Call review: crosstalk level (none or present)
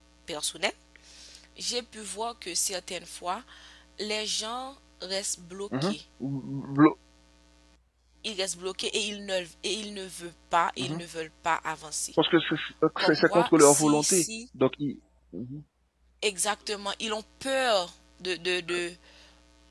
present